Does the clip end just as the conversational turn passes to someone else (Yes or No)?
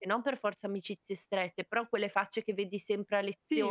Yes